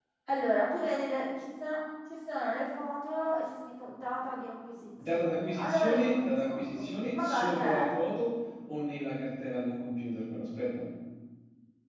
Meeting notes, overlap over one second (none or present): present